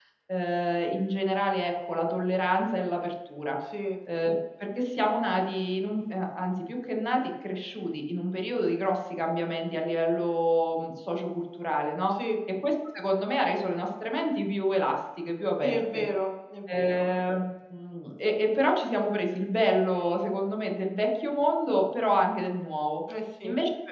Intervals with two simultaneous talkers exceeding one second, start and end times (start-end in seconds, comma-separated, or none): none